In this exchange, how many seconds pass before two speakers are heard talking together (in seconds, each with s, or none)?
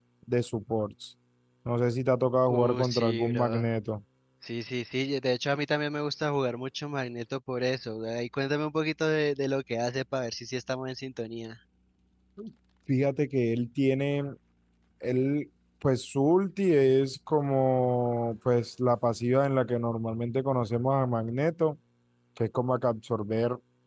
2.5 s